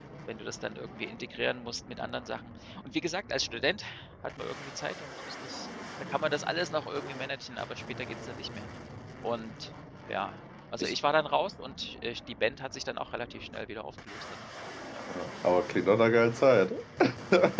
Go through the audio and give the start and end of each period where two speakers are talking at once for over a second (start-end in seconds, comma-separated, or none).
none